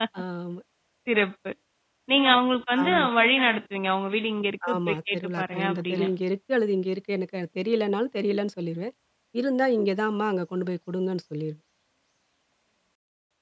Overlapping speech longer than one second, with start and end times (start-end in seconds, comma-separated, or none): 4.8-6.1